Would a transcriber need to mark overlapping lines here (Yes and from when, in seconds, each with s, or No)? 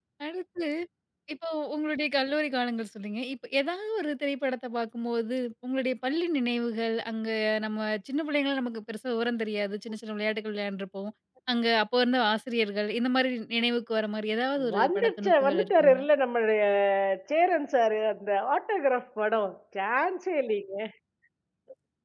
Yes, from 14.6 s